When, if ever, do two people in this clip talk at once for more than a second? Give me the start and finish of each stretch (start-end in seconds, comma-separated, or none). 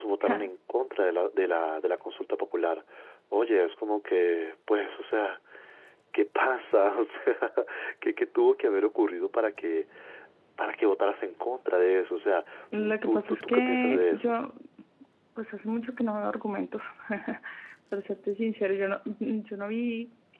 13.0-14.3